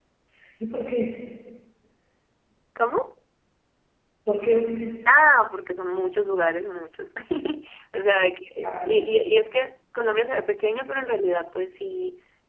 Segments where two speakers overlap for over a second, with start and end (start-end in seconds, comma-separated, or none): none